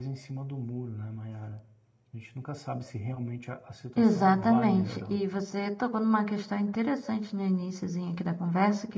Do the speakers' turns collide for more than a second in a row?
Yes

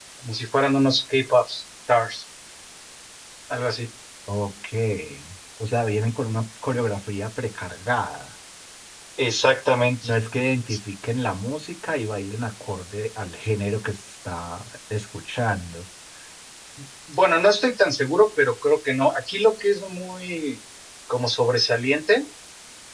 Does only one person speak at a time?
Yes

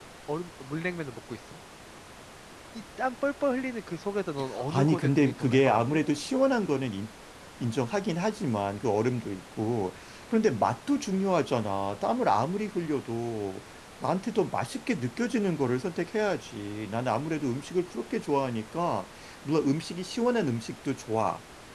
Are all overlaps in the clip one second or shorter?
No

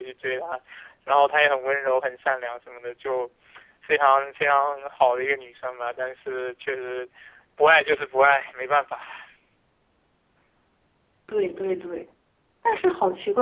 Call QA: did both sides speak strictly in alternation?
Yes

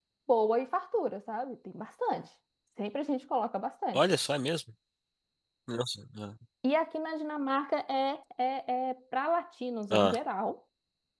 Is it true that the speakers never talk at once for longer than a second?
Yes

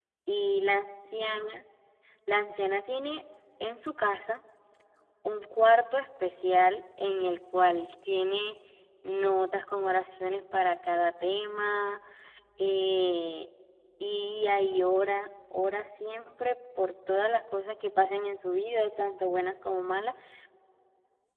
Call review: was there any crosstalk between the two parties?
No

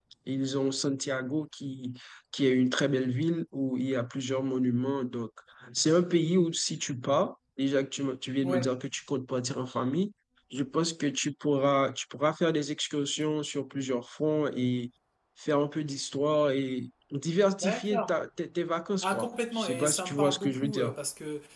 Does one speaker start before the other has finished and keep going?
Yes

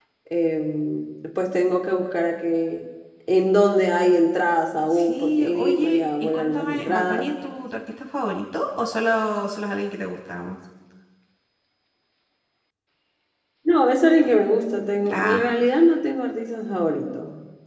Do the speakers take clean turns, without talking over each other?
No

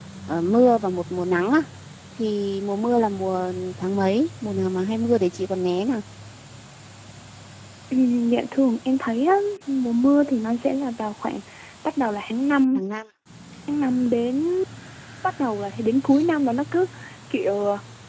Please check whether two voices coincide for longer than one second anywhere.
No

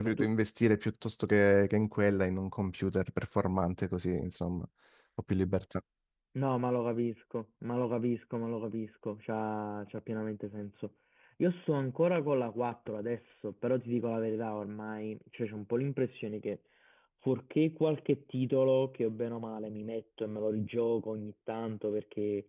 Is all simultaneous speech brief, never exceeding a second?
Yes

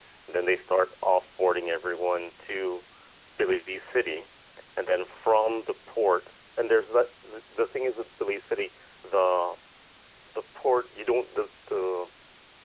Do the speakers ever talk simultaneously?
No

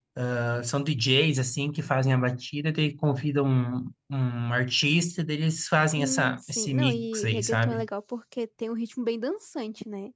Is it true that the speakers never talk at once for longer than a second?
No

